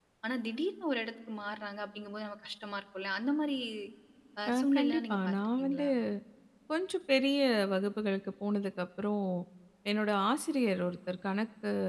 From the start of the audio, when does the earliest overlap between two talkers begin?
4.5 s

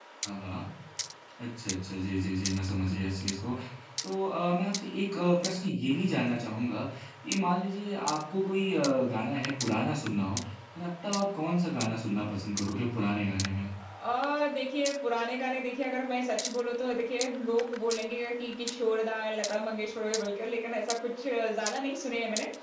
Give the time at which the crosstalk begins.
none

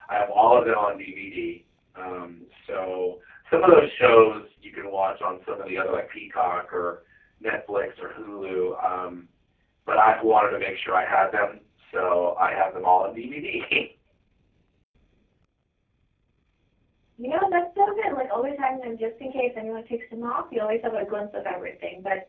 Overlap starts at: none

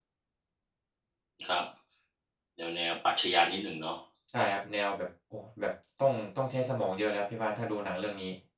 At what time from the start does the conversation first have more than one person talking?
none

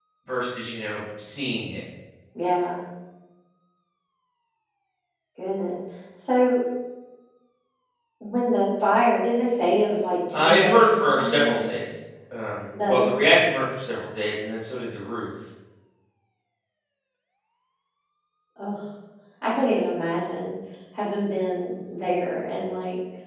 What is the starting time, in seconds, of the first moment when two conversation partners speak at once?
10.3 s

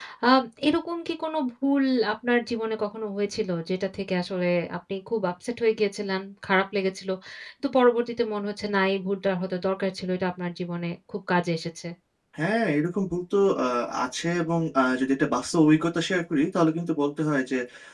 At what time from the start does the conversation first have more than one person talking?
none

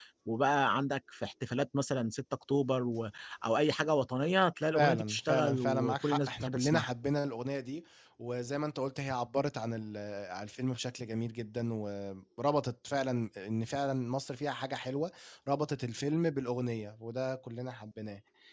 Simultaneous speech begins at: 4.7 s

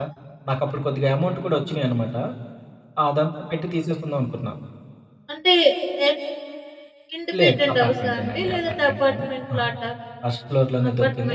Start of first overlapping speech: 7.4 s

